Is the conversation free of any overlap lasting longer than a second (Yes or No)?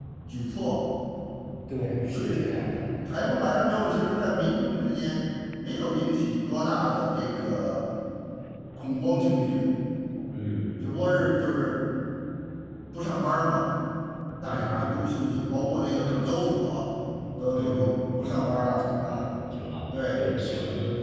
Yes